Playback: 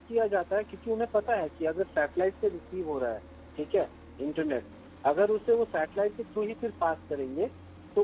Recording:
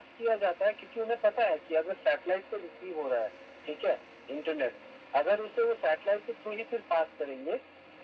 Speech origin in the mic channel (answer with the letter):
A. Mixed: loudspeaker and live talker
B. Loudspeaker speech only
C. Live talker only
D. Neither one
B